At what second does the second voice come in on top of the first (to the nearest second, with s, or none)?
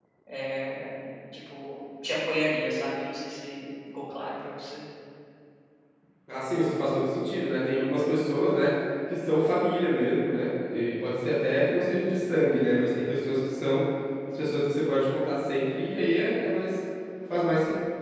none